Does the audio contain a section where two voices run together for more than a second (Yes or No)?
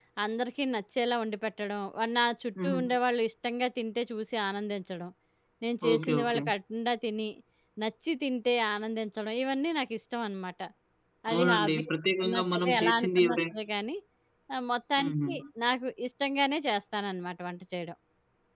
Yes